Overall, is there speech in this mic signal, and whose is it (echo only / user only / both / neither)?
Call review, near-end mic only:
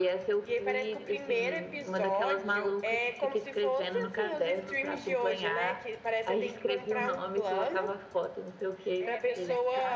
both